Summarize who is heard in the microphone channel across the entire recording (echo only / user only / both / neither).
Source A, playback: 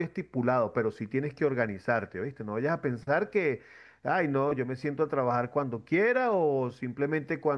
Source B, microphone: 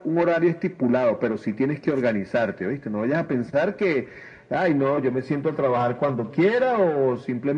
echo only